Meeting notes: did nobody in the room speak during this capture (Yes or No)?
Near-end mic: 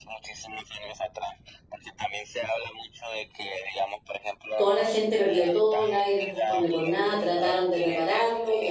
No